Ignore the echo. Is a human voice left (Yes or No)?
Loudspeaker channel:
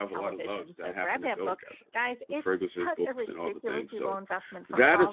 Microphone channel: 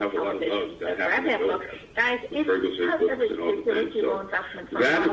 No